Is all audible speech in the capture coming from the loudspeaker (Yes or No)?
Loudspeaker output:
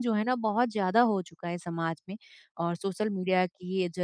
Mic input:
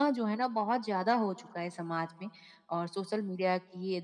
Yes